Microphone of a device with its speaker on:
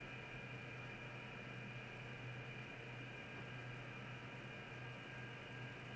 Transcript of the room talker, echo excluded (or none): none